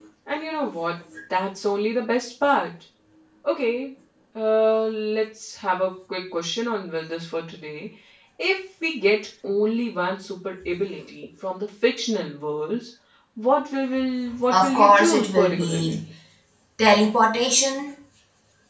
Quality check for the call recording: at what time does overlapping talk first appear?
14.5 s

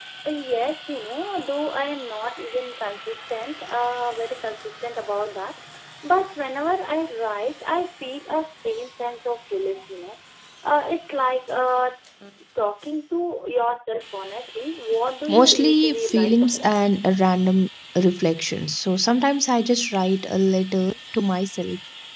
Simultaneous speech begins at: 15.2 s

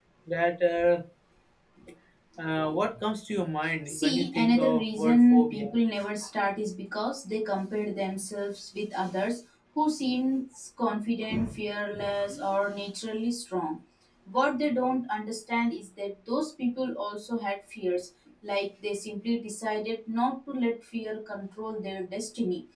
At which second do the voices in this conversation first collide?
3.9 s

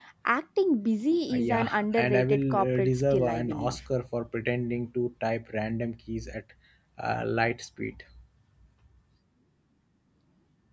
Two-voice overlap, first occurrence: 1.3 s

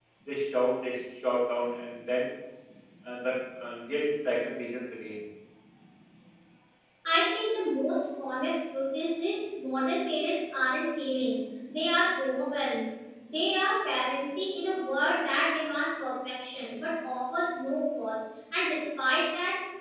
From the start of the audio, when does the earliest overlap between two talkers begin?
none

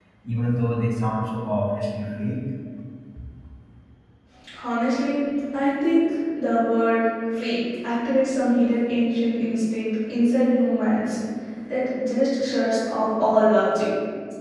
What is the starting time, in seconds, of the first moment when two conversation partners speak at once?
none

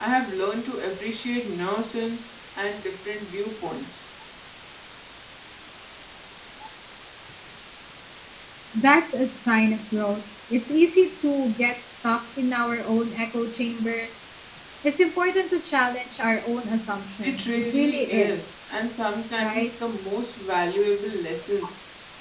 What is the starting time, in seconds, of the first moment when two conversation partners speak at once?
17.2 s

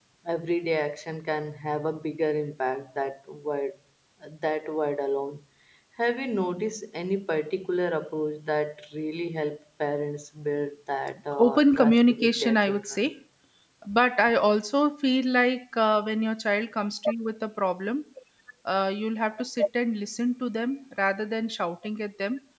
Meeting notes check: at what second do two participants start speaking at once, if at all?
11.4 s

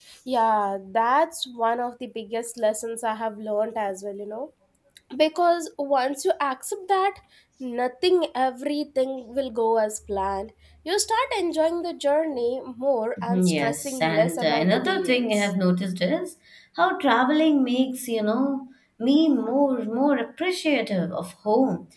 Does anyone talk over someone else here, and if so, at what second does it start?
13.2 s

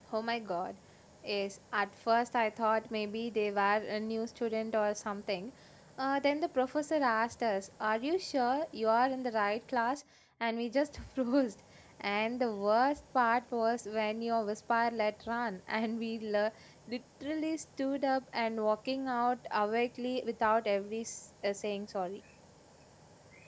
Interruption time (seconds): none

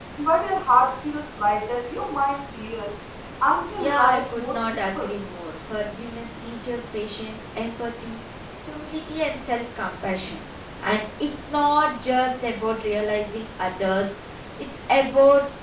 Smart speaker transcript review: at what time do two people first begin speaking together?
3.8 s

